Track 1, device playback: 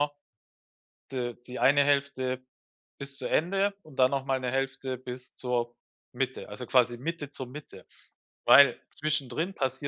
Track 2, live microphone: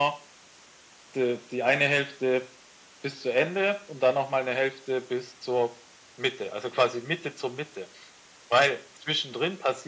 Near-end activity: none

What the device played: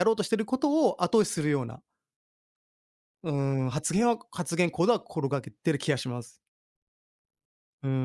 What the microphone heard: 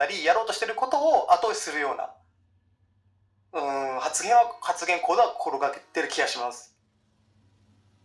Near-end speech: none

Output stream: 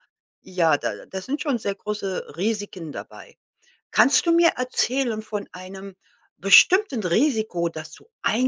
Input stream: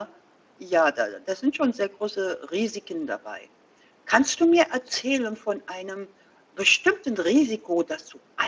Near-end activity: none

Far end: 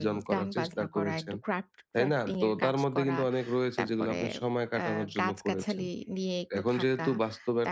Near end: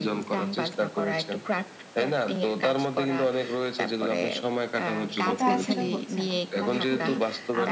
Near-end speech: present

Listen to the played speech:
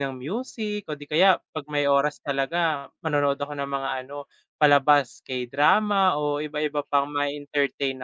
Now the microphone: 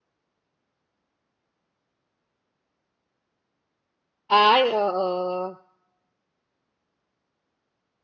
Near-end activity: present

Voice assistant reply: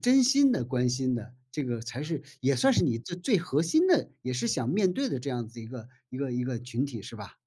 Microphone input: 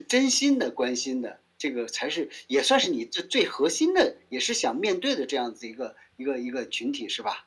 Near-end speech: none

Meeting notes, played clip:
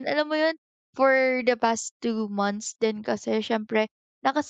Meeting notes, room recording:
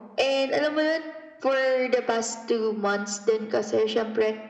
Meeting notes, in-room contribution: none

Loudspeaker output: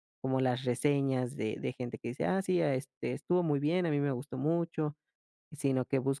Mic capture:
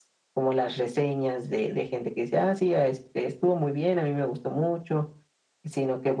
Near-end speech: none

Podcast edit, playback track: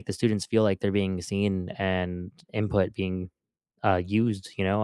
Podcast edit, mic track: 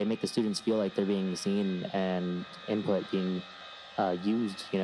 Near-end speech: none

